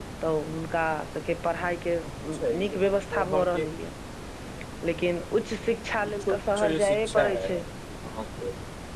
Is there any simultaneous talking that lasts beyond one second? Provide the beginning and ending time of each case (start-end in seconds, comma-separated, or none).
6.2-7.5